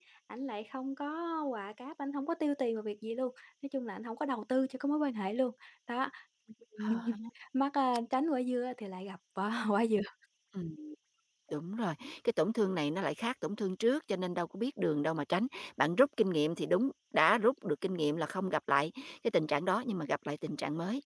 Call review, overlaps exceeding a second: none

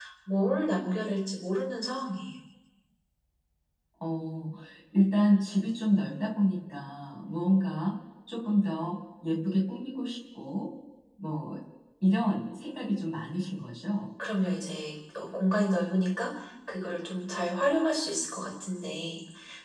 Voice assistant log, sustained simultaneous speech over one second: none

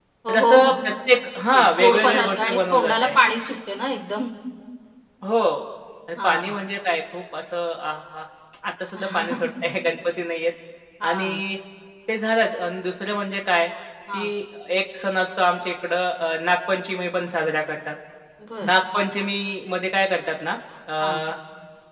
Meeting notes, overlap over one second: present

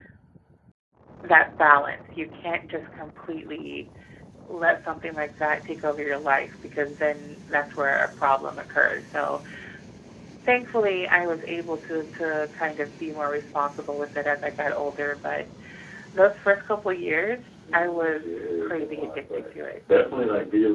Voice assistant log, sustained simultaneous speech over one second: present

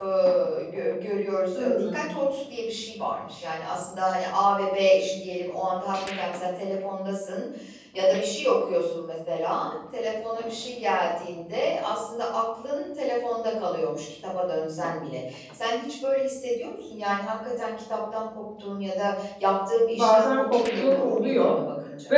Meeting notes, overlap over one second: present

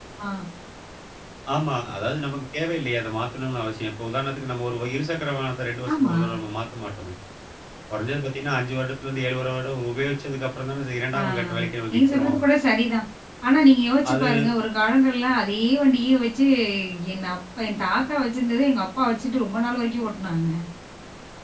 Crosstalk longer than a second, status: none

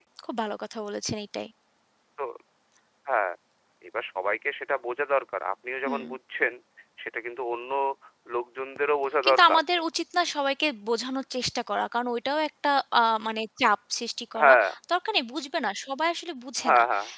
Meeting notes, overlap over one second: none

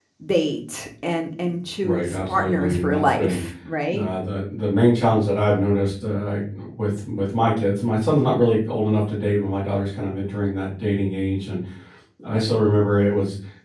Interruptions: present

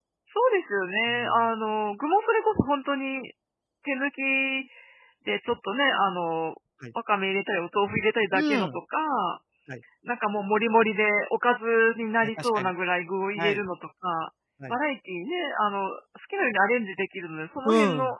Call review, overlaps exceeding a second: none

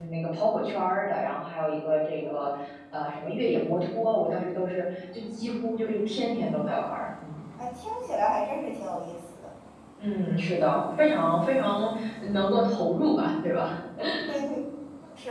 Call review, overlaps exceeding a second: none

